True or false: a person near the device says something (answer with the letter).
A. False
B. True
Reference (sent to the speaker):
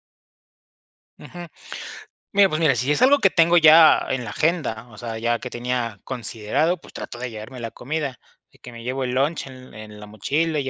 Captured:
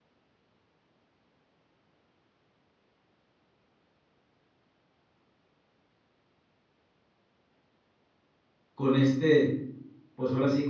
B